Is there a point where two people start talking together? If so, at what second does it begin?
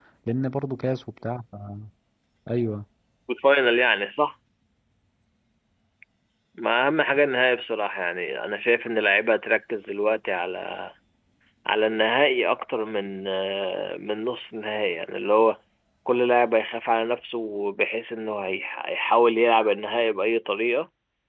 none

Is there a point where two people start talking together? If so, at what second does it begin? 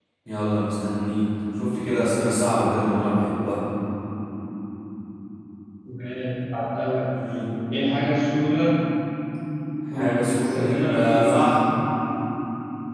10 s

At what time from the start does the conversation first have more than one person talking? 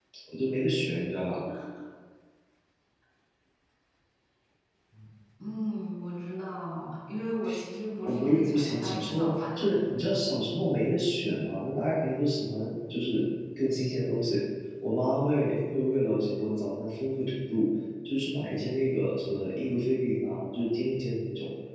8 s

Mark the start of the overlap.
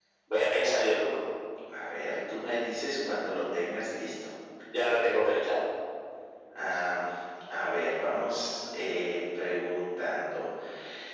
none

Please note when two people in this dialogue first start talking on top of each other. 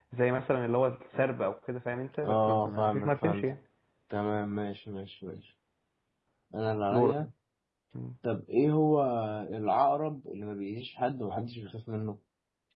2 s

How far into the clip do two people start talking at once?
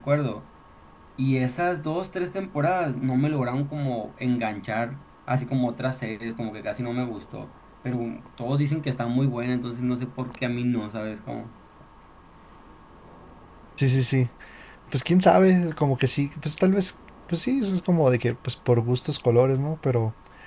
none

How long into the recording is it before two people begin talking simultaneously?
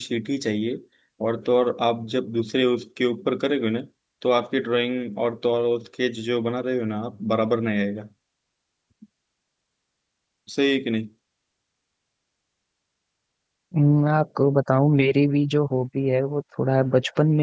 none

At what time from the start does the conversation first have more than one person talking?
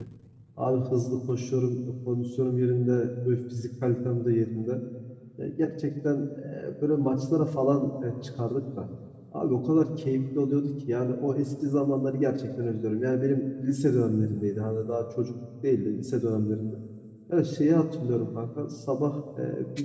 none

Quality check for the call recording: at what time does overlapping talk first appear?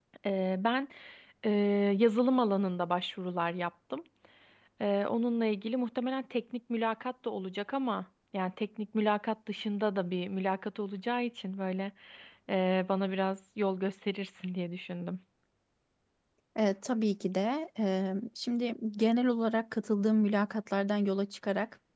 none

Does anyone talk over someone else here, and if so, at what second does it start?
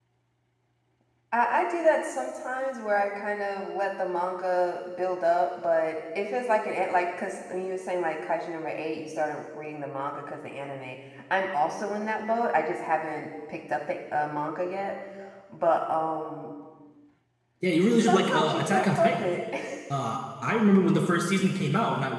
18 s

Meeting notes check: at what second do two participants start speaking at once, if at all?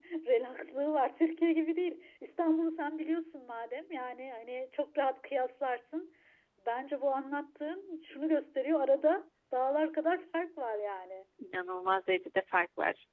none

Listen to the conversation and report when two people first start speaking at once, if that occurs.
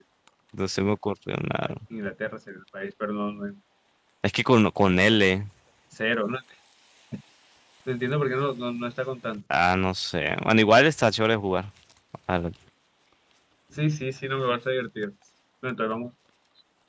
none

